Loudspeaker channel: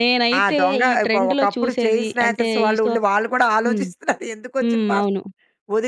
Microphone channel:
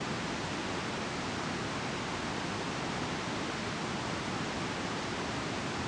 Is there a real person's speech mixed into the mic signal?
No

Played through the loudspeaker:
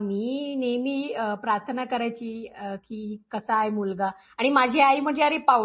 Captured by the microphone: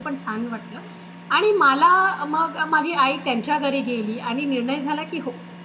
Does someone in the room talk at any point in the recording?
Yes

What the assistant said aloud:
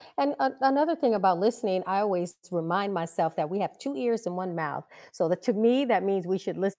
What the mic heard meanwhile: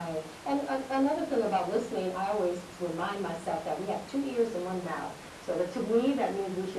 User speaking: No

